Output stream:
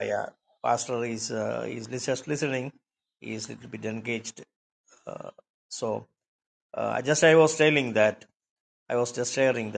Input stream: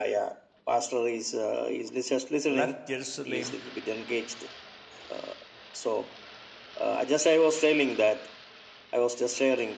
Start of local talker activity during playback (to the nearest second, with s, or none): 2 s